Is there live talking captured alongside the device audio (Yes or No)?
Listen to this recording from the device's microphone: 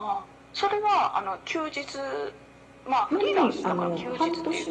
Yes